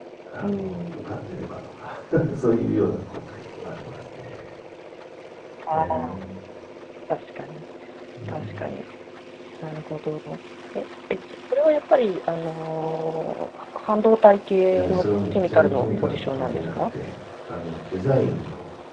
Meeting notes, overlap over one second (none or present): present